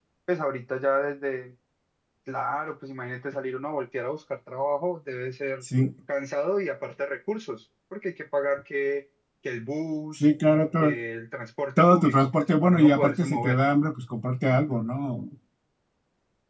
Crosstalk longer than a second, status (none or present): present